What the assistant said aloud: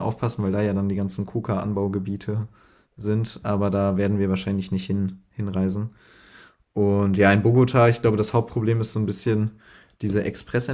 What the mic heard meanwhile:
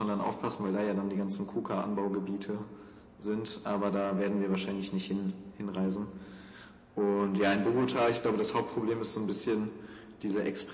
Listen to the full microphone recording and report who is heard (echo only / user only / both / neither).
echo only